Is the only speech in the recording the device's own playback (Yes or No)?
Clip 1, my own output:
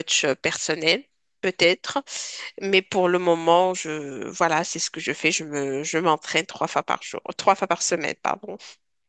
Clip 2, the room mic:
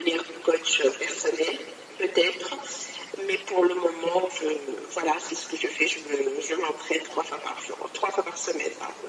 Yes